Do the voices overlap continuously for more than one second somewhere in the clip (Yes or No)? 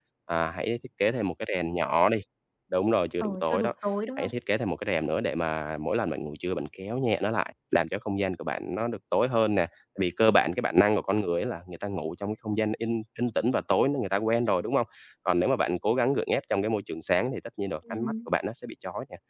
No